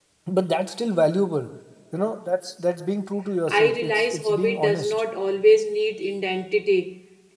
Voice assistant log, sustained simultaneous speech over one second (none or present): present